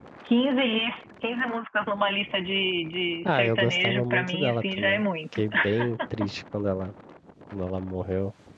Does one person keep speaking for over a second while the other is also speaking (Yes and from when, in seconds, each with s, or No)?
Yes, from 3.4 s